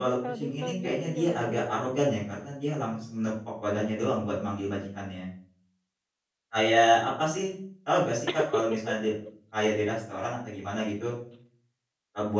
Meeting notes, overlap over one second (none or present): present